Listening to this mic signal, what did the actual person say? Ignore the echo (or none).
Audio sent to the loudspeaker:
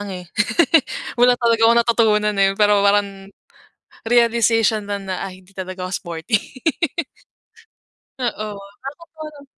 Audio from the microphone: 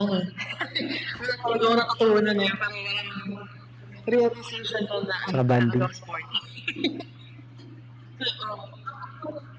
tsaka bonding?